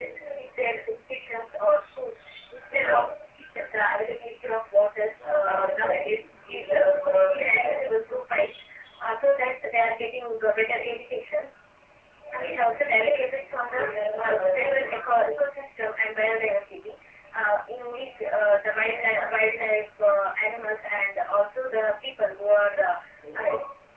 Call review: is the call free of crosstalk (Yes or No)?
No